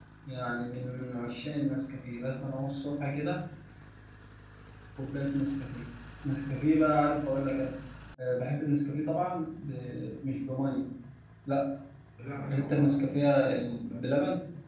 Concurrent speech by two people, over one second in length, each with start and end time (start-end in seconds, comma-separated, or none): 12.5-14.1